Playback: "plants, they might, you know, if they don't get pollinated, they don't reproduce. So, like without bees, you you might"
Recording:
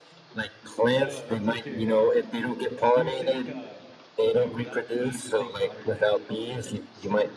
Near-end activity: present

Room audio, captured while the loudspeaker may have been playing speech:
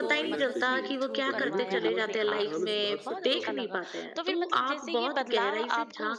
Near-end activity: present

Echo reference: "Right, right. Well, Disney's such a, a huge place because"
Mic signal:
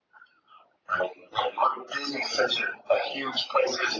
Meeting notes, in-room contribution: none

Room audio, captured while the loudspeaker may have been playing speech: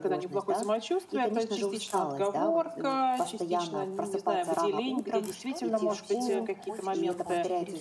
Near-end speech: present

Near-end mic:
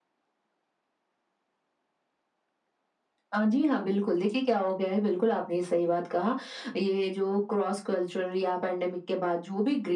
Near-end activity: none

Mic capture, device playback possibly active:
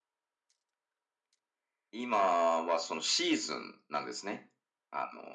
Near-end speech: none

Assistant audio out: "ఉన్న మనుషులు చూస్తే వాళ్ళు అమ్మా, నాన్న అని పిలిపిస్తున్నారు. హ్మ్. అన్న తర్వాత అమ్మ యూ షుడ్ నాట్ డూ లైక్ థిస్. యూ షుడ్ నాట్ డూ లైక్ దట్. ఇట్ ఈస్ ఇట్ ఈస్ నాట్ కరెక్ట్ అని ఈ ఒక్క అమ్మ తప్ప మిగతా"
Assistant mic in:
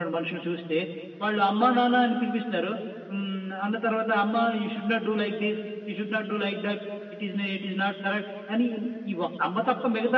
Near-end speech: none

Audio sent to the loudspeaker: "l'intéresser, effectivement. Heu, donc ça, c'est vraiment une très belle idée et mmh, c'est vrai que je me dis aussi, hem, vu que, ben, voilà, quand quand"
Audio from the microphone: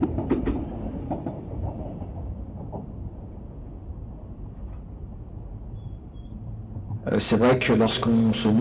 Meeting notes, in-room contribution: present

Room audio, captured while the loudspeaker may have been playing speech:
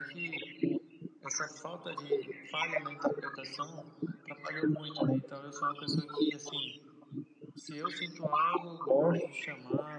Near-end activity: none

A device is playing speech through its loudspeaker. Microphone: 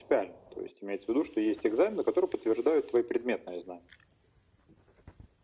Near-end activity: none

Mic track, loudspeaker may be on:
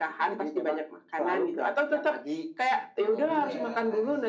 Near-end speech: present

